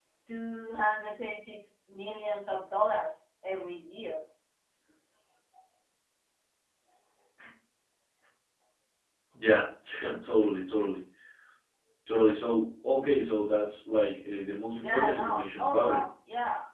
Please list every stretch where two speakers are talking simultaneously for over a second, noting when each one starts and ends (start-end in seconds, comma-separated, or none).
14.7-16.1